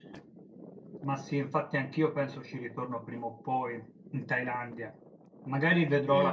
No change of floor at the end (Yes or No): No